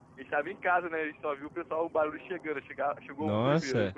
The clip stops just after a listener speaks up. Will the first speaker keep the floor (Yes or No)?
No